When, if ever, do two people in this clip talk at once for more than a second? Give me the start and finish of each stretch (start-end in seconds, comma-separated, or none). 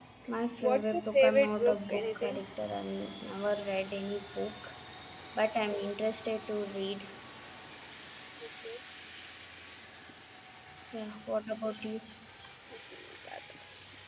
0.6-2.4